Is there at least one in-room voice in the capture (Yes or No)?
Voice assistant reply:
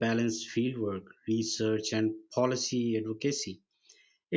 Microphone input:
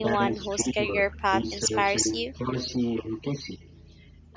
Yes